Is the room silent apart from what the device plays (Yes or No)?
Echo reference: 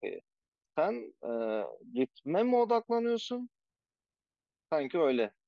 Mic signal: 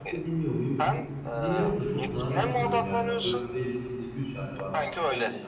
No